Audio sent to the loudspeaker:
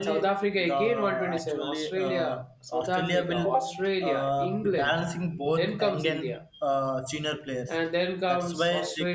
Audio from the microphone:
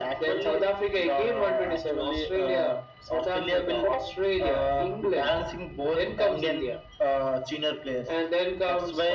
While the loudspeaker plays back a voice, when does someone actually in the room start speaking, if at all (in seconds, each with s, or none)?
none